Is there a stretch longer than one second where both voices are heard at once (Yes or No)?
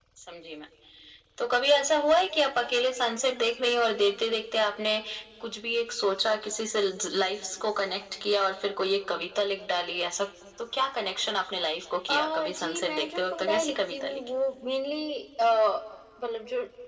Yes